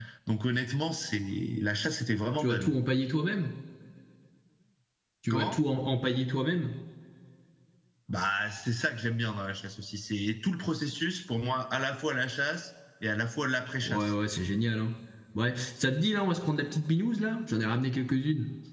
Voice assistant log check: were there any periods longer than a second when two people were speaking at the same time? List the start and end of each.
none

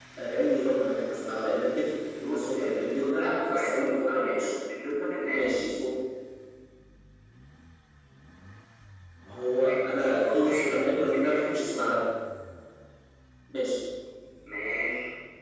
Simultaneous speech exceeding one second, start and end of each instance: 2.2-4.5, 9.6-11.9

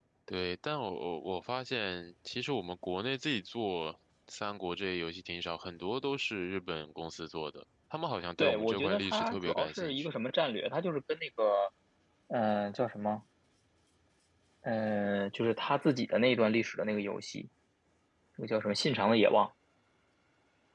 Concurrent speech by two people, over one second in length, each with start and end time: 8.4-10.2

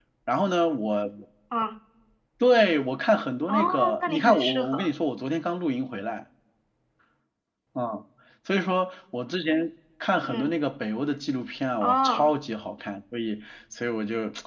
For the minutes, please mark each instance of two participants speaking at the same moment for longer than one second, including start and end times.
3.5-4.9

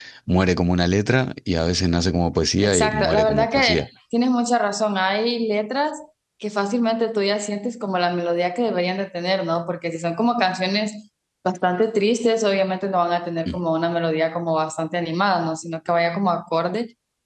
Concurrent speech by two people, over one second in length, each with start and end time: 2.6-3.8

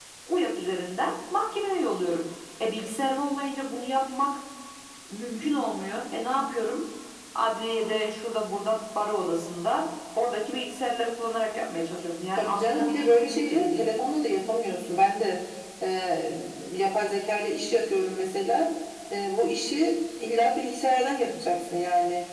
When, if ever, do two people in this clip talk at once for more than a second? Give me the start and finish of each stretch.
12.4-13.8

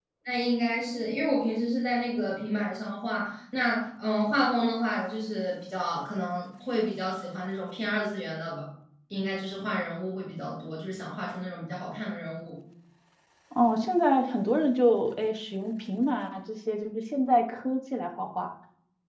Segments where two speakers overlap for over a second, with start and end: none

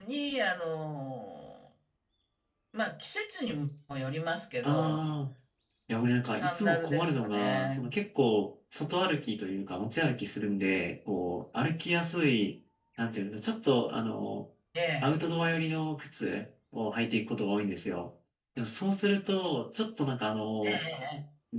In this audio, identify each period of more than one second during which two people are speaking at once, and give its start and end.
6.3-7.9

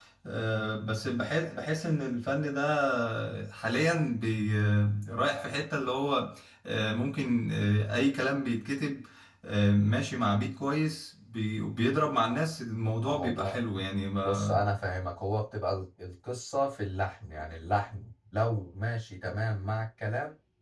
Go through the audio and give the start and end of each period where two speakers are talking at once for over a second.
none

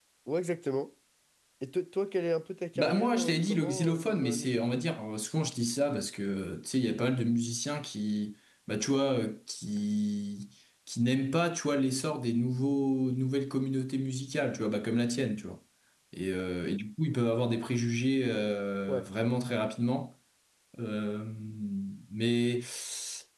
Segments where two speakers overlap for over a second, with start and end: 2.8-4.6

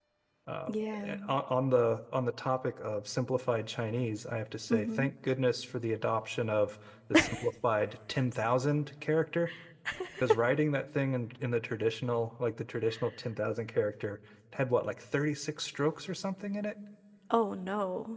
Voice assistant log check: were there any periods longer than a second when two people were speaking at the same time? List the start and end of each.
none

